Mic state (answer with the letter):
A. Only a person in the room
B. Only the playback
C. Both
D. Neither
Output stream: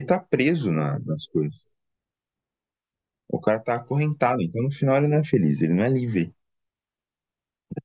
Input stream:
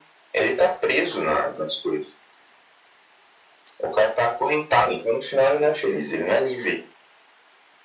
B